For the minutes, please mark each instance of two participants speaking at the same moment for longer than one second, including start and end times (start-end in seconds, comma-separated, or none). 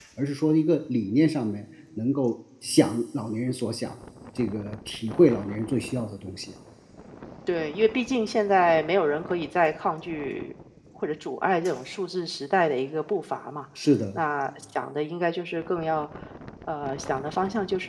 none